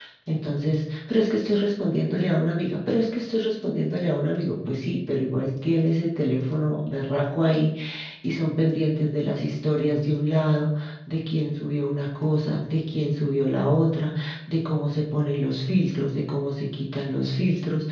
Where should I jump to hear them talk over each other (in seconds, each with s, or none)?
none